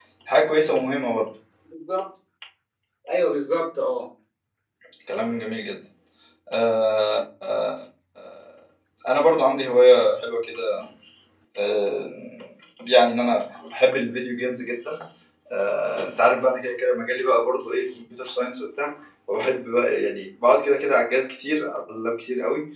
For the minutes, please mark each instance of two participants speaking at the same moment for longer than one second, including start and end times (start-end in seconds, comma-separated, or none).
none